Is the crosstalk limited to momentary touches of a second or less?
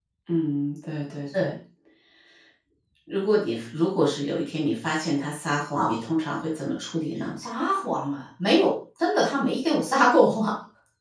Yes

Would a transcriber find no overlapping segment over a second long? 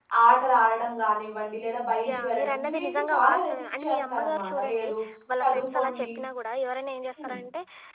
No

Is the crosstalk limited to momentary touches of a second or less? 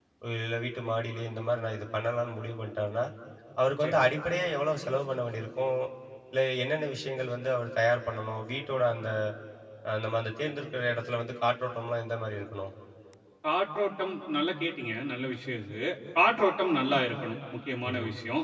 Yes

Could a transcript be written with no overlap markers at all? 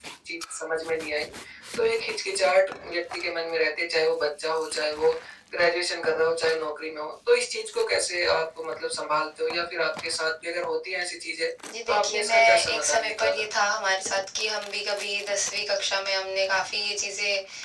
No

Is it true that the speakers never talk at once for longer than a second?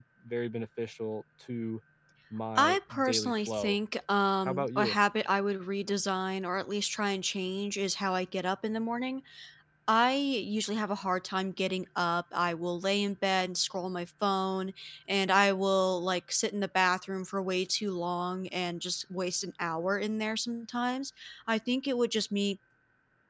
No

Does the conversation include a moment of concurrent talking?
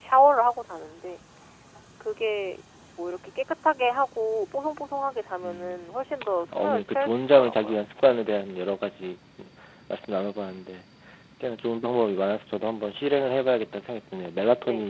Yes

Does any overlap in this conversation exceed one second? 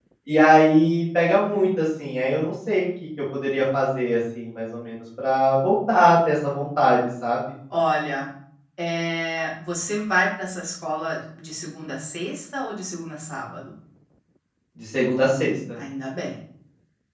No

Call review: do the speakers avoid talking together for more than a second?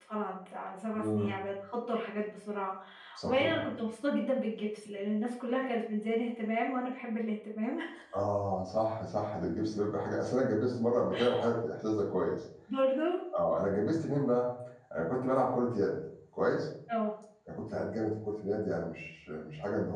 Yes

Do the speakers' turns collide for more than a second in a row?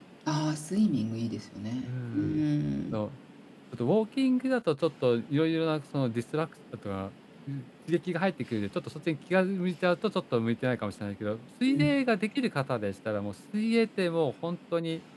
No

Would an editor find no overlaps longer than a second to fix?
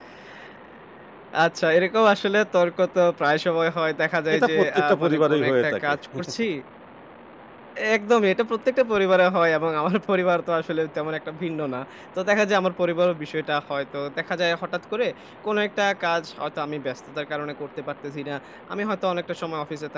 No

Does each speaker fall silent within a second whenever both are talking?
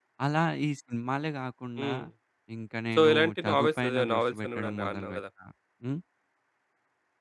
No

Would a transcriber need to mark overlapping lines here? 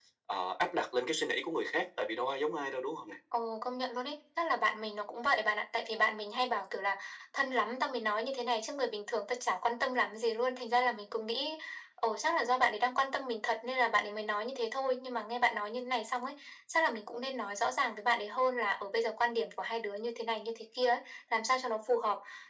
No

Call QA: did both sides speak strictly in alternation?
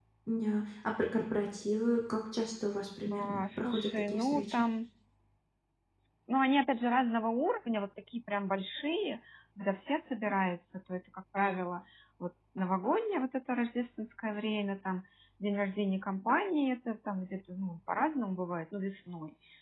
No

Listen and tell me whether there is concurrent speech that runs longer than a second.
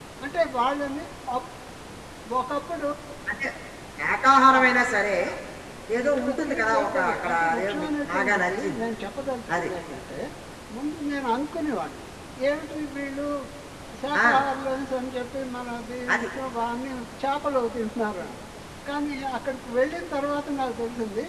Yes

